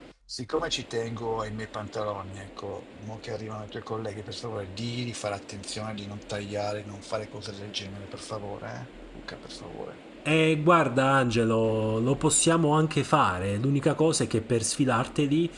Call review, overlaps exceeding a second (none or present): none